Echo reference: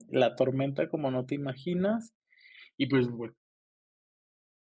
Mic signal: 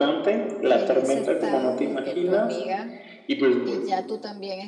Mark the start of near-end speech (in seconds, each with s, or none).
0.6 s